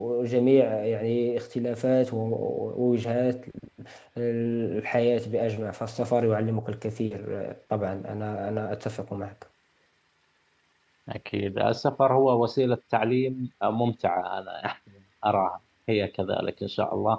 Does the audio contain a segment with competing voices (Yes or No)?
No